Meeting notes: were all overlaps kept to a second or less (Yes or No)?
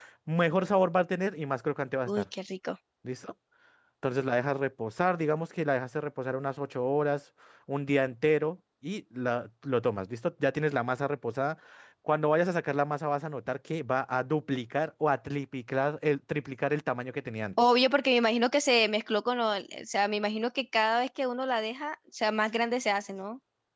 Yes